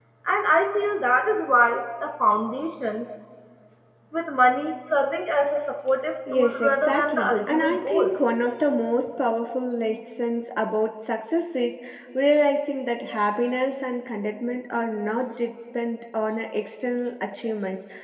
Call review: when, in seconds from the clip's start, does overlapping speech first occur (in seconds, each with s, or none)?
6.3 s